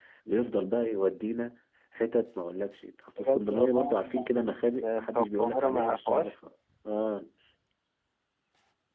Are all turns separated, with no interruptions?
No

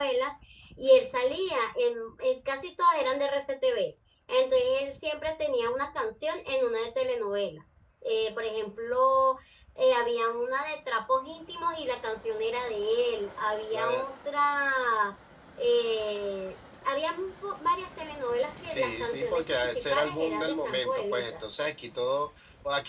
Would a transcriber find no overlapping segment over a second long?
No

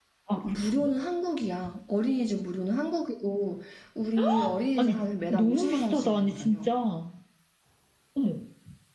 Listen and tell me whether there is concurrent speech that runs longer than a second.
Yes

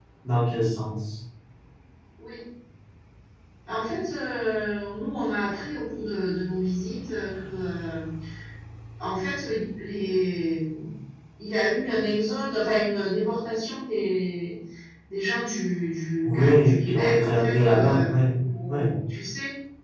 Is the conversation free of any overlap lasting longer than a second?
No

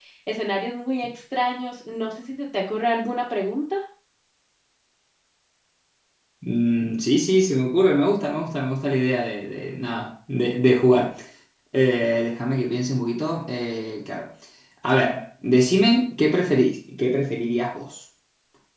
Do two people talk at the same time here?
No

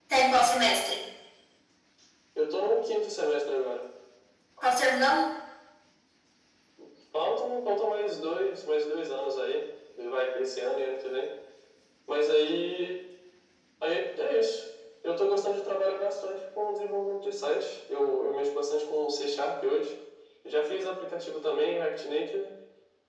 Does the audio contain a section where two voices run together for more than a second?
No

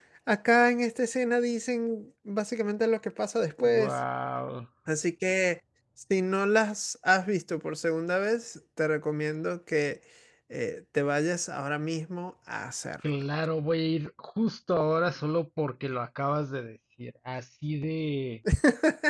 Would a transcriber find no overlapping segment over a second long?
Yes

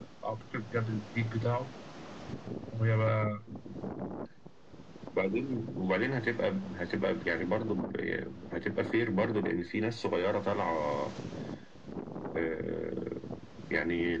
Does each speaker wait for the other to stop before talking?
Yes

